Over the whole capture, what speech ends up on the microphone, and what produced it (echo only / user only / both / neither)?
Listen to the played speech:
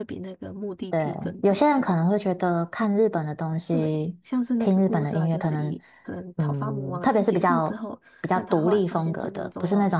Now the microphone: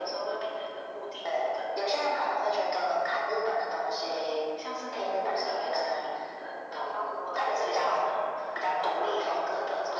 echo only